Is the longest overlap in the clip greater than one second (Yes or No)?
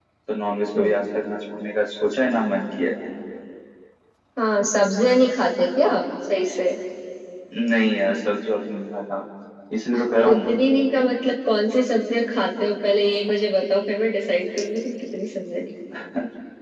No